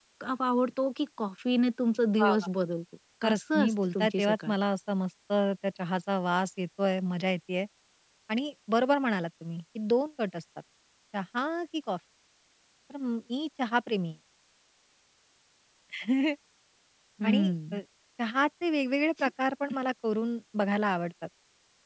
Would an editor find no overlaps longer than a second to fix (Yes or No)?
No